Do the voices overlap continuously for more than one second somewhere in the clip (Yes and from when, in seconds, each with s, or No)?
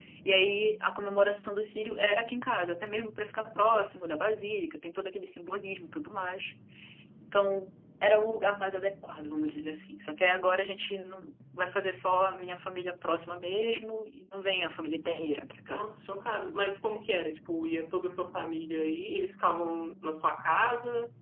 No